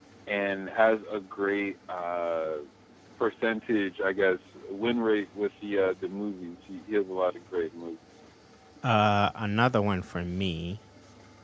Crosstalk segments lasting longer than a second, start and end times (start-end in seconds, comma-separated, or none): none